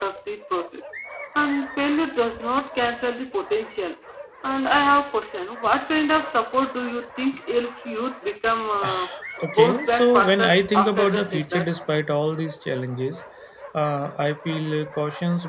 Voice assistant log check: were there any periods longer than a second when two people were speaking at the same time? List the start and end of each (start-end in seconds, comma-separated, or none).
9.5-11.7